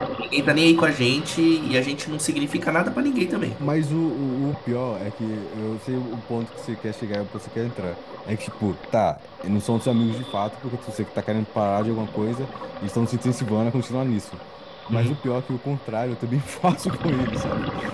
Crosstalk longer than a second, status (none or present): none